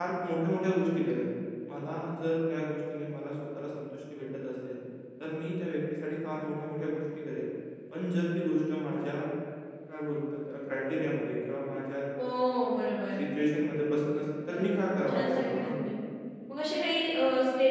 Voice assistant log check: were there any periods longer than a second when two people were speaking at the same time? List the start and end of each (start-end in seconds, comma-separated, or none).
14.5-15.7